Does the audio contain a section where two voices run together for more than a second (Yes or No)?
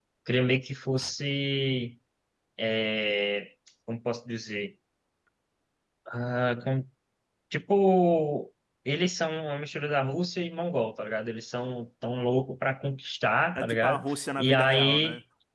Yes